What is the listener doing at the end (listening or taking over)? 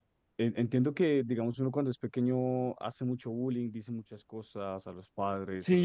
taking over